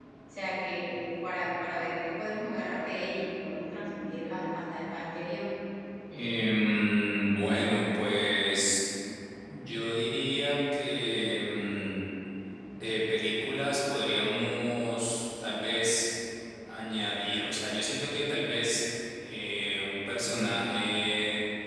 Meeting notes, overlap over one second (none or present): none